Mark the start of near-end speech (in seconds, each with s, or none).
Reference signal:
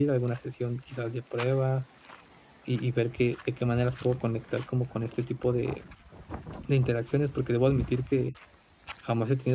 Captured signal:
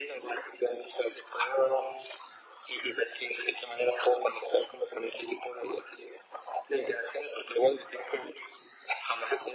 none